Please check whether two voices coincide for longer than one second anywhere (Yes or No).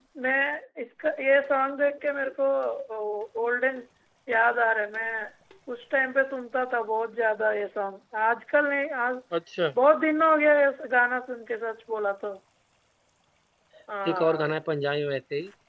No